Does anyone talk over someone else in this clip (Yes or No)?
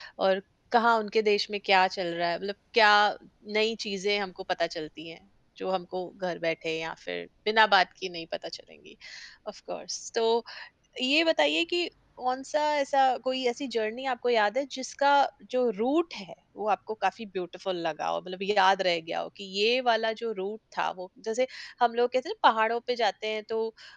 No